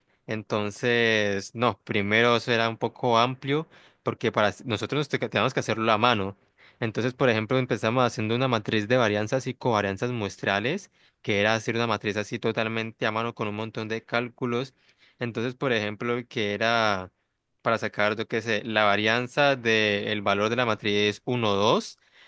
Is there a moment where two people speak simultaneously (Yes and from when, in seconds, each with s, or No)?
No